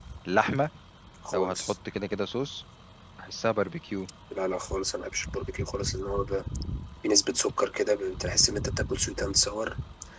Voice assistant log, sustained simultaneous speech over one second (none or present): none